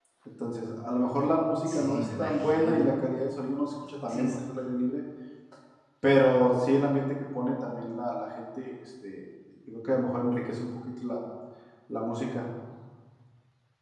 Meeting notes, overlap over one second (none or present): present